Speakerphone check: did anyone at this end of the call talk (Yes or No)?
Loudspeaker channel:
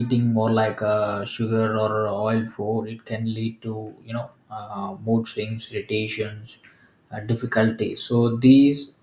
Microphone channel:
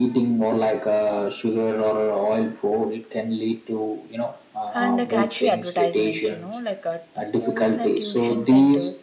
Yes